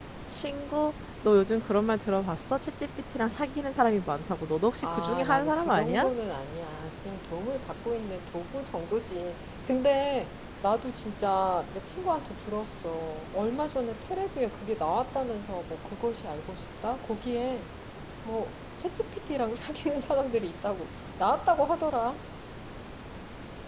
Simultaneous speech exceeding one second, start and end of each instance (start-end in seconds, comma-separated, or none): 4.8-6.1